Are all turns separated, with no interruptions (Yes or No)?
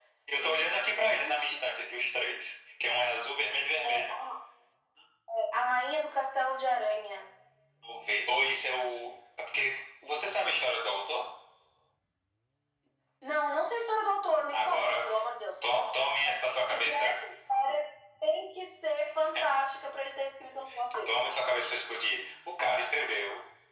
No